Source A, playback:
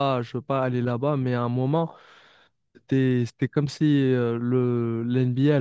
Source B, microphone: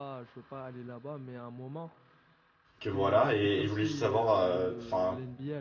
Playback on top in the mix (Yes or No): No